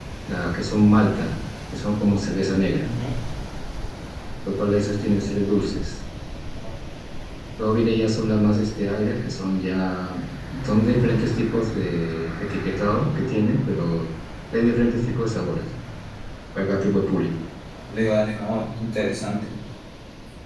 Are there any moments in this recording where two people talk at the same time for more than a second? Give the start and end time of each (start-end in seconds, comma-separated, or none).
none